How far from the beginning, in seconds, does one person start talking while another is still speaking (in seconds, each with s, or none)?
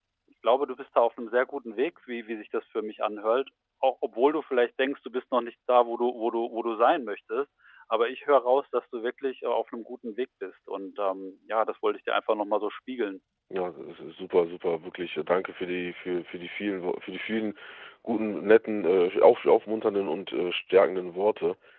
none